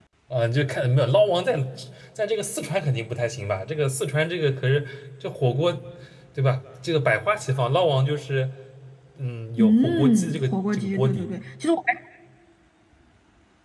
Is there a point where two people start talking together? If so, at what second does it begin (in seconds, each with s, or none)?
9.6 s